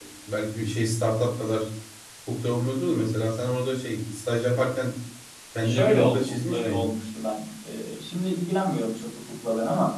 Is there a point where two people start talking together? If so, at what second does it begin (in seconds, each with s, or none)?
5.6 s